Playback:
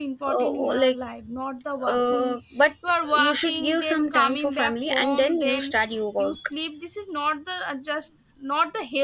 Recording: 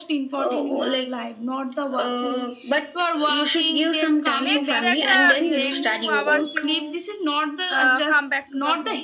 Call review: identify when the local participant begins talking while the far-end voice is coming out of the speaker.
4.4 s

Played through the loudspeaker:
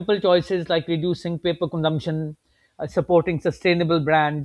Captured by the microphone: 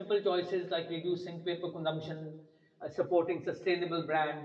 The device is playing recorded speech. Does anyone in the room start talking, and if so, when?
none

